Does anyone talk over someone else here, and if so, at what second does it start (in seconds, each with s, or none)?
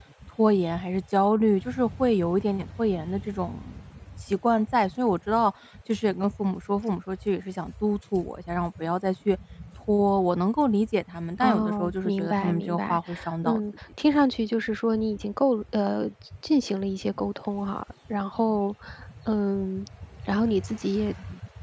11.4 s